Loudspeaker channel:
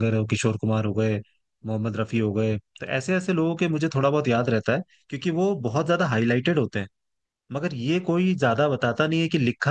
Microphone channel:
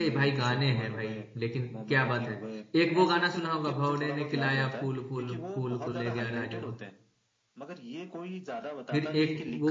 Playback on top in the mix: No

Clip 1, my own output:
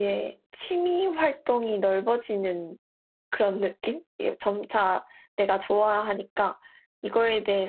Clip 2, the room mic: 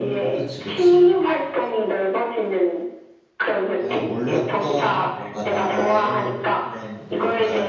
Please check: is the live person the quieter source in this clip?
Yes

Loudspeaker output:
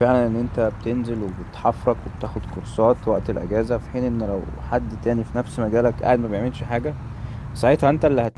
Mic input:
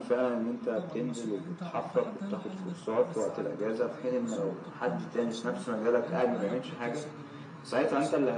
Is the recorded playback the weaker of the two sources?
No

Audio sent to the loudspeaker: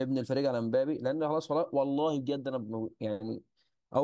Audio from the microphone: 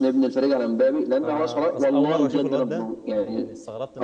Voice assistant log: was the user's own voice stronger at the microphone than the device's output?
No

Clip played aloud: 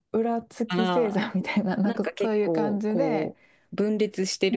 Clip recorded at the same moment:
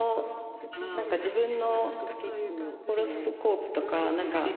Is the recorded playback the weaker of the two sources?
Yes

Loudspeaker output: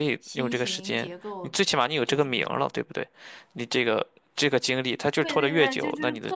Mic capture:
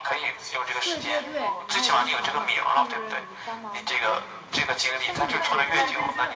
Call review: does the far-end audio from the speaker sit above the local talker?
Yes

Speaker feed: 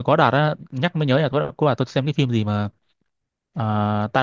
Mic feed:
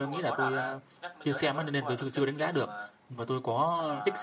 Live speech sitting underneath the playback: No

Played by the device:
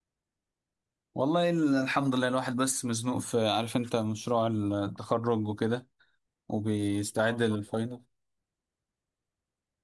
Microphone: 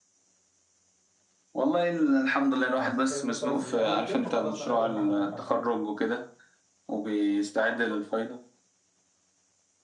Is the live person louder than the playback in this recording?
No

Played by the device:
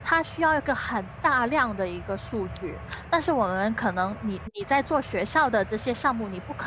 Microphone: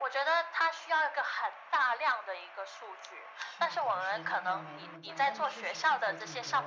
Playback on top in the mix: Yes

